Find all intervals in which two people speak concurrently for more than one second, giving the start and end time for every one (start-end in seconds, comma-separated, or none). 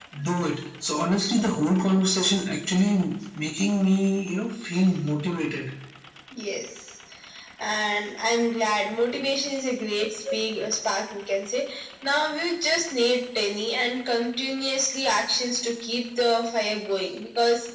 none